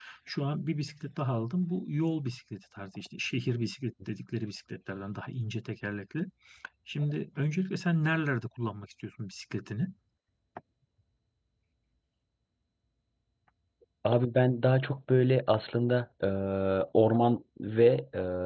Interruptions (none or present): none